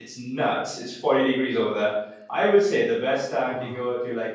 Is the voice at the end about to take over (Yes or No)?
No